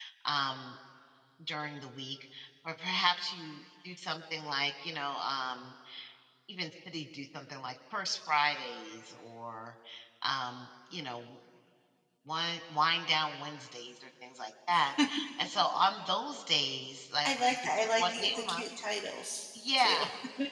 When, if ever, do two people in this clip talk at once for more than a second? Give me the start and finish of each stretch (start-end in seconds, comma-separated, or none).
17.2-18.6